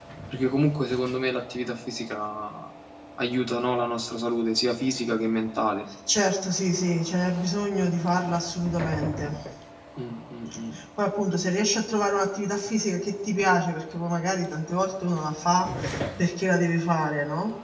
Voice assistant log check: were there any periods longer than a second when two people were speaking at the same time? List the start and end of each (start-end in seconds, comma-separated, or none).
none